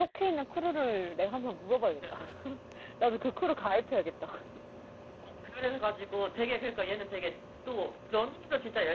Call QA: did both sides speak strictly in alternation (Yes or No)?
Yes